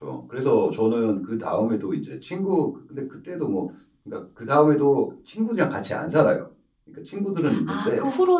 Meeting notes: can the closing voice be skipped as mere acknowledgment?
No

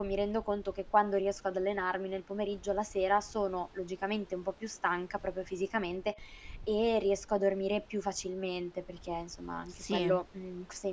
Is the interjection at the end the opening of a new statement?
No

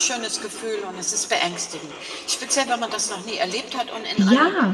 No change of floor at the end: Yes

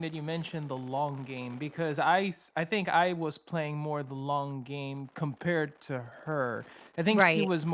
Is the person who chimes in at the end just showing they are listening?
Yes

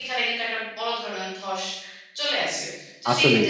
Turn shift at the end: No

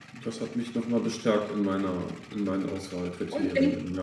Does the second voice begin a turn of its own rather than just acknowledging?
Yes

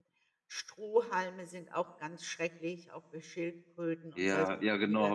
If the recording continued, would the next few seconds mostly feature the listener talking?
Yes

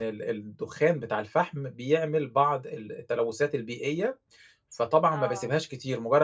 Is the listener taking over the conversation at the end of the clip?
No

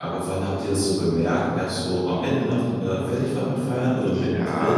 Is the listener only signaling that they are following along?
No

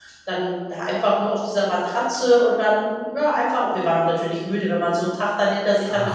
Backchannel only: No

